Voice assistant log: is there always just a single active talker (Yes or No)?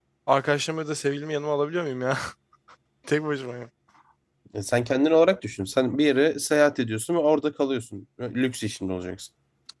Yes